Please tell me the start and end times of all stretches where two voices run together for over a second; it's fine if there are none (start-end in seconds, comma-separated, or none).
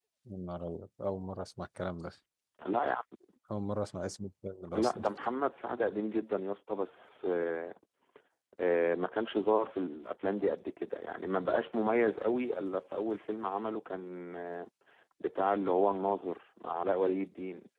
none